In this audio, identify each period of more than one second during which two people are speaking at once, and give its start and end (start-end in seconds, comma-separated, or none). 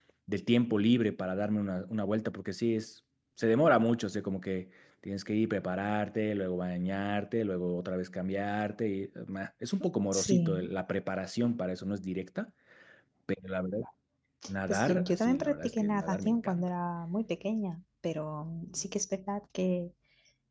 14.7-16.6